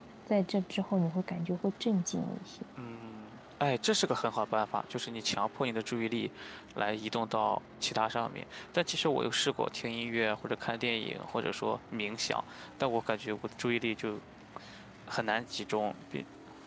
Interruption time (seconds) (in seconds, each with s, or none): none